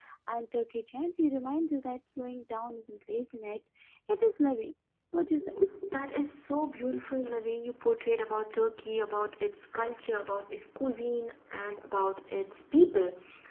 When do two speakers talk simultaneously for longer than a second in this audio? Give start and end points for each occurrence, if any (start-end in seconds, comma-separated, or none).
none